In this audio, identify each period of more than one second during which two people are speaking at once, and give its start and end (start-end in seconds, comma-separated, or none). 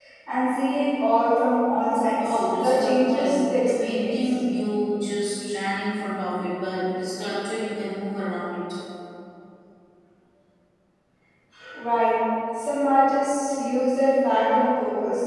2.2-4.3